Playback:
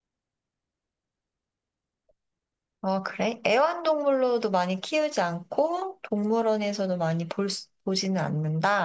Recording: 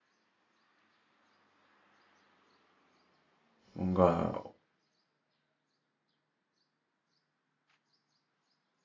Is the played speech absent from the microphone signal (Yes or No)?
Yes